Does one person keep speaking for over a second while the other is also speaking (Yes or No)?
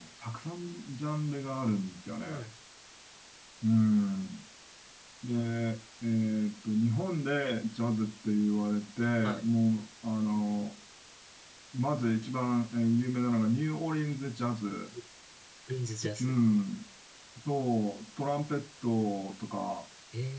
No